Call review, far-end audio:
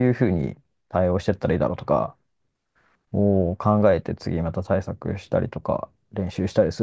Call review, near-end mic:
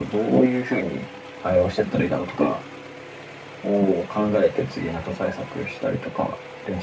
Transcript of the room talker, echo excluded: none

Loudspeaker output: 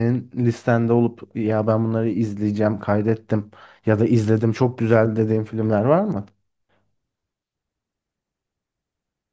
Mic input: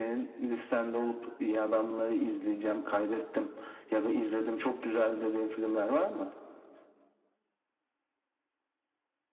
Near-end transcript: none

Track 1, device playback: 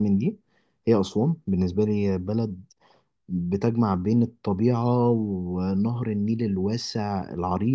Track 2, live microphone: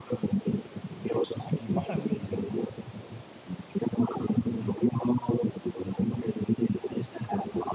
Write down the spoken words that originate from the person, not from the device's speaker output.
اكيد بحر نظيف

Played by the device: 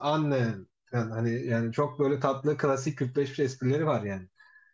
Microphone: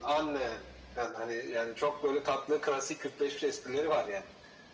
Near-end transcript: none

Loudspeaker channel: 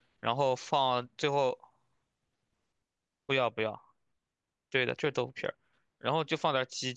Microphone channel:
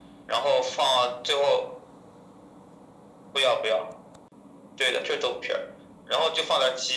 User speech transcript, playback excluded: none

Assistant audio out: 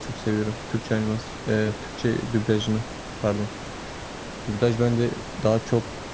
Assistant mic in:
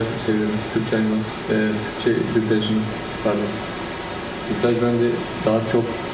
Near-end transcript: none

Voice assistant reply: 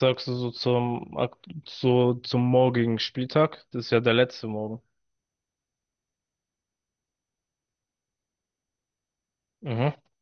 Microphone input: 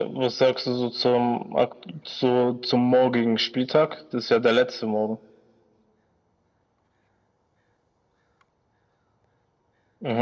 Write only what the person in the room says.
none

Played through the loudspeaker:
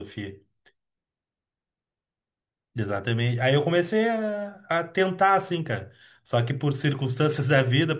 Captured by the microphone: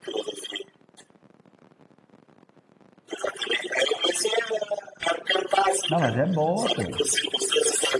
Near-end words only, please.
Não, mas é boa, pô.

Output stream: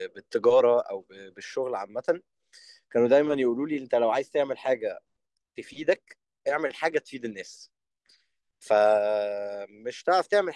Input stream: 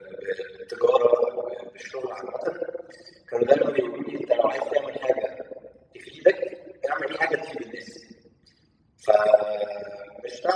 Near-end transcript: none

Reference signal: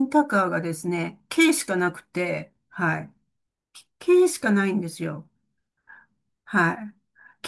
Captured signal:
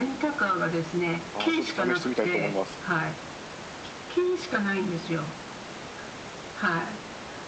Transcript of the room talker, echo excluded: ああ、ちょっと試してみたいと思います。

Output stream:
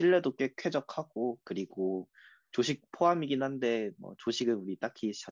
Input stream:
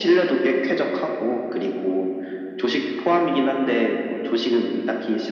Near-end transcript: none

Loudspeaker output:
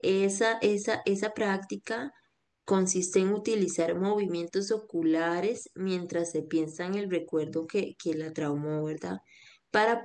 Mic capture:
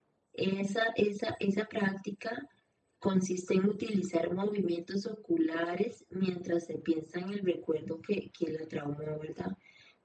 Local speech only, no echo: none

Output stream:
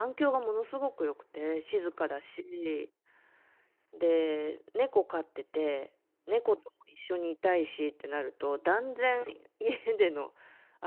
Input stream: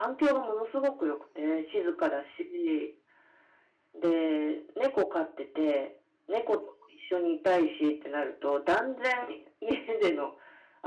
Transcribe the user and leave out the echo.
none

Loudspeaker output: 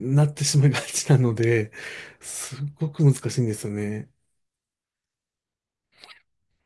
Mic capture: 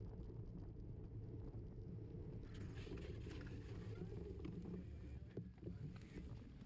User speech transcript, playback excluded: none

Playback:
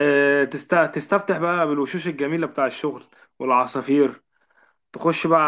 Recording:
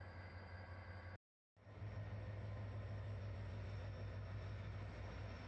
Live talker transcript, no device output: none

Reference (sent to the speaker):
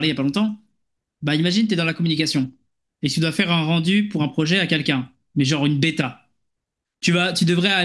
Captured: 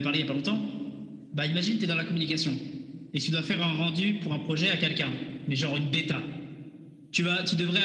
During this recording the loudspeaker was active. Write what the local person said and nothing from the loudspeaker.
none

